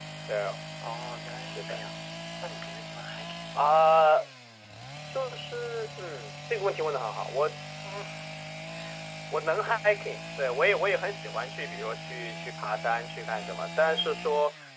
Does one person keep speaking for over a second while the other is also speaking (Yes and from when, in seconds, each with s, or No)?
No